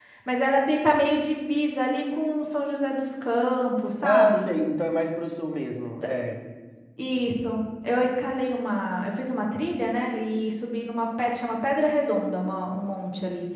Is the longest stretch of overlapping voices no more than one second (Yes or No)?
Yes